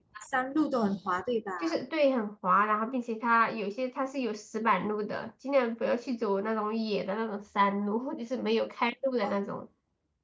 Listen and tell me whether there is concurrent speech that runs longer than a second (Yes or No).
No